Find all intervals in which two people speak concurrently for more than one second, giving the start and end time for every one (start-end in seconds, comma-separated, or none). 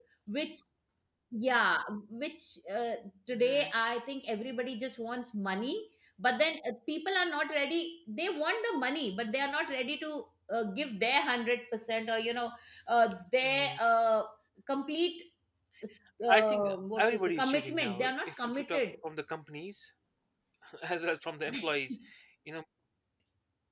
16.3-18.8